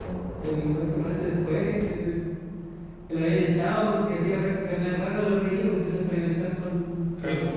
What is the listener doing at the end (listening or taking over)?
listening